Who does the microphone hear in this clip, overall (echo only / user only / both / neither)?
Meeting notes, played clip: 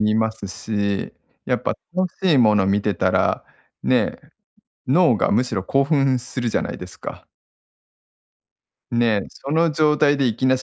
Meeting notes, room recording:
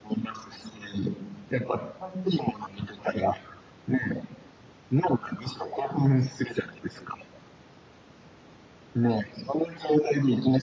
echo only